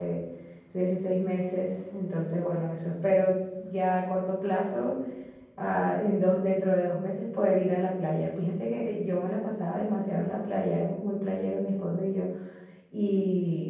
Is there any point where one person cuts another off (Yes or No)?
No